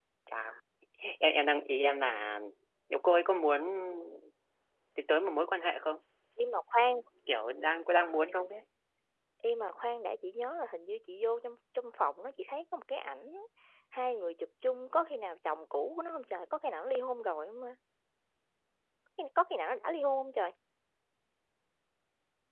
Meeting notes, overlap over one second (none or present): none